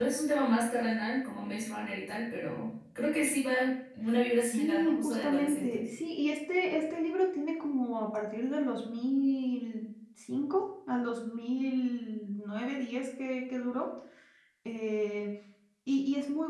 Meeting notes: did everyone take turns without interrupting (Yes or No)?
No